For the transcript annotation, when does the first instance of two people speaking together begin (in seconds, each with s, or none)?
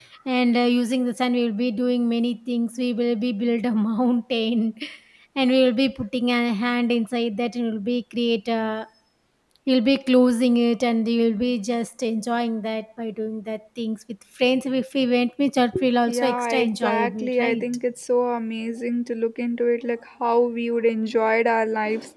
16.1 s